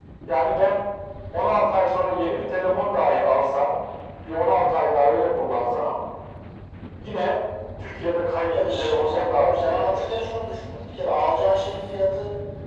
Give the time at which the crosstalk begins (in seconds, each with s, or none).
8.5 s